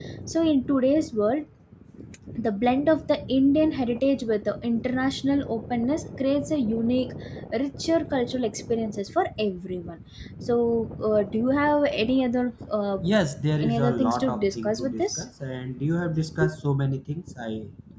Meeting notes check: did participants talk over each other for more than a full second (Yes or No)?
Yes